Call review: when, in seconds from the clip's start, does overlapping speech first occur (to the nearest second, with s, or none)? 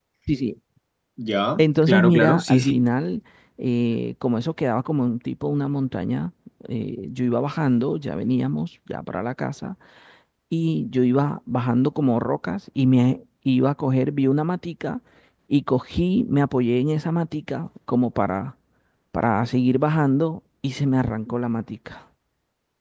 2 s